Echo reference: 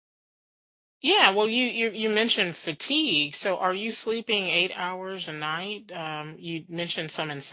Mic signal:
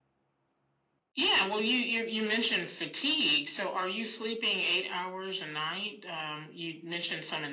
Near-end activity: none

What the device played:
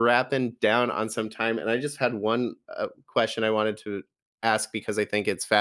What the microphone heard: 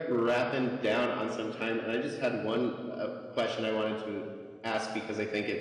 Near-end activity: none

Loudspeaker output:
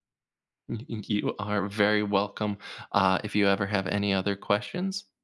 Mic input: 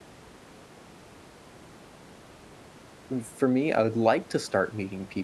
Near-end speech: present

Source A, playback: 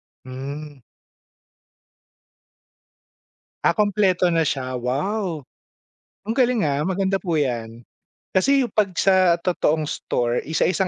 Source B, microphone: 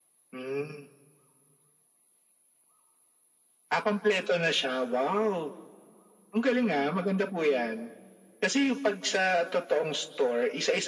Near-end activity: none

